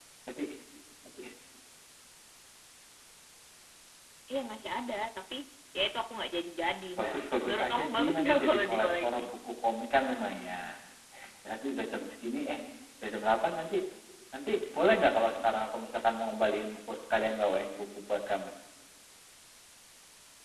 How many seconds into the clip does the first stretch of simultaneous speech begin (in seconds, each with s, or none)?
7.4 s